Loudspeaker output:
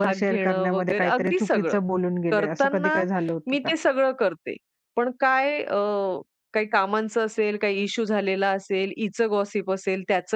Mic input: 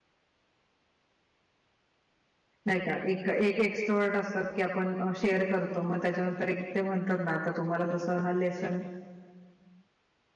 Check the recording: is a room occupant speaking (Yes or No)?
Yes